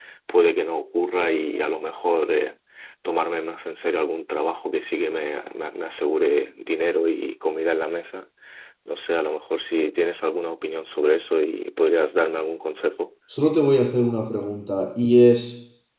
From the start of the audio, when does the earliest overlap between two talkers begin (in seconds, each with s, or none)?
none